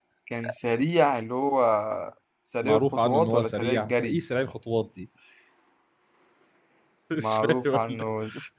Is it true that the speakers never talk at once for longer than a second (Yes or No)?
No